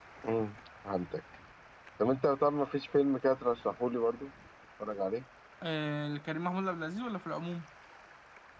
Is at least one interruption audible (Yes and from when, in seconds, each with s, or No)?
No